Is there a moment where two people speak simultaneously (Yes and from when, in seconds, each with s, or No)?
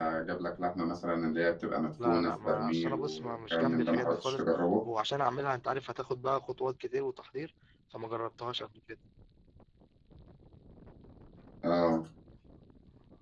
Yes, from 2.0 s